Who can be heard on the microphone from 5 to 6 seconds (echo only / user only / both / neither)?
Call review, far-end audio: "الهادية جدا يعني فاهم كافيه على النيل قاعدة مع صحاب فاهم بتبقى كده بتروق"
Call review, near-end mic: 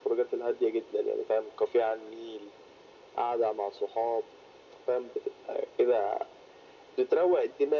echo only